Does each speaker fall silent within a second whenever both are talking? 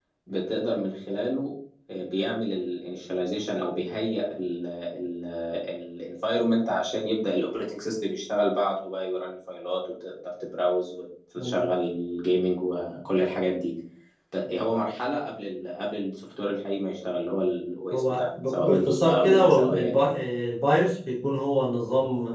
No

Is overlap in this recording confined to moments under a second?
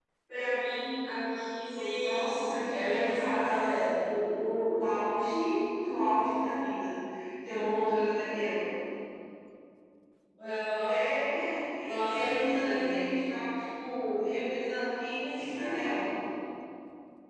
No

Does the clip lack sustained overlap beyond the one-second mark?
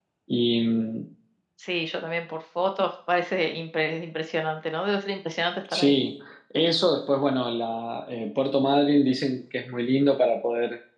Yes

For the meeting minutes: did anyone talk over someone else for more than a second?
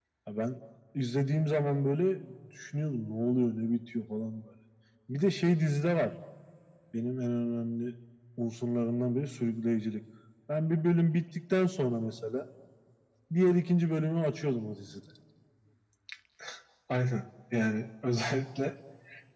No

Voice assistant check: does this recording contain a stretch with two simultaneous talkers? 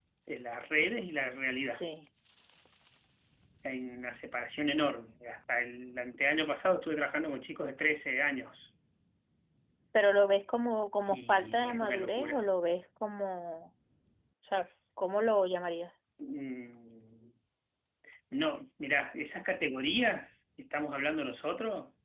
Yes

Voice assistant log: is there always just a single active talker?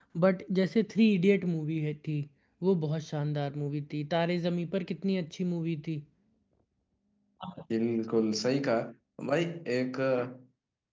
Yes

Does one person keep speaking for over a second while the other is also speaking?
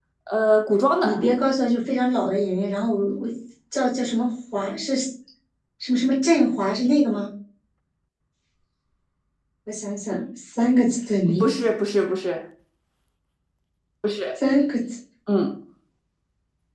No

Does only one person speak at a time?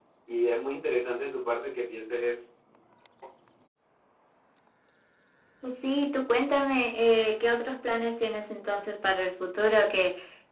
Yes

